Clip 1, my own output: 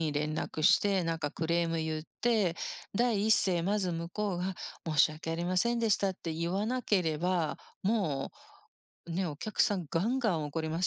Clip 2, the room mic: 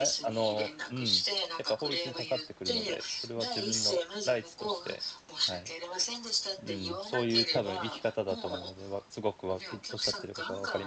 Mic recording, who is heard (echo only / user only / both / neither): both